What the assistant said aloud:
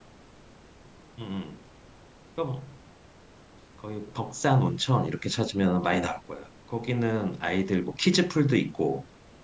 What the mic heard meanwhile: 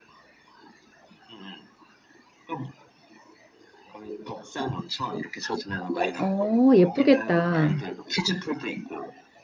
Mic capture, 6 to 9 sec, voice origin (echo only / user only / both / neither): both